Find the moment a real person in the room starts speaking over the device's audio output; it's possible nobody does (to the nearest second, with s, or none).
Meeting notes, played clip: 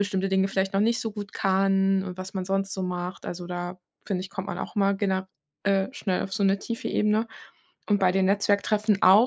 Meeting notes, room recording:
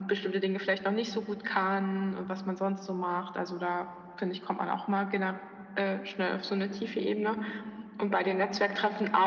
none